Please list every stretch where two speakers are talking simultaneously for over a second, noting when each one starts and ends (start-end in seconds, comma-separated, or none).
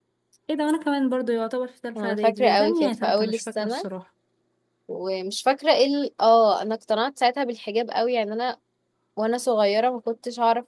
2.0-3.9